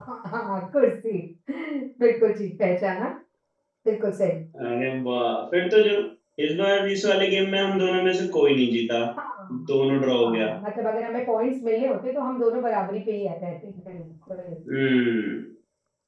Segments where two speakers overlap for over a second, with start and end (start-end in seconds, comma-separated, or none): none